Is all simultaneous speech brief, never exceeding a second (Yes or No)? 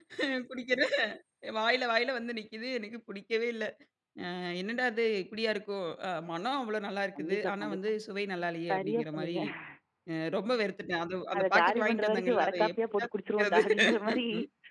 No